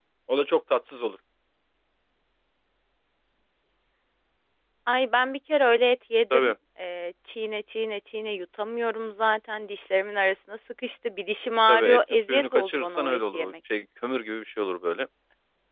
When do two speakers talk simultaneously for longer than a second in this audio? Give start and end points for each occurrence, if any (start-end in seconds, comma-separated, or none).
11.7-13.5